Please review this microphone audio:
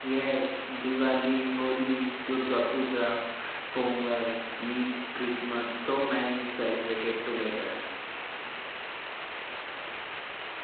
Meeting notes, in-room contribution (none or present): present